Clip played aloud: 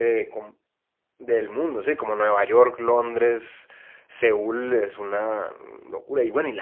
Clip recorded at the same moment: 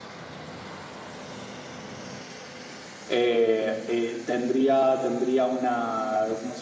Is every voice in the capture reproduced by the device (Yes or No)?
No